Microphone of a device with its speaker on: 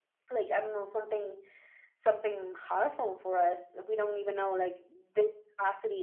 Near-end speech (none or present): none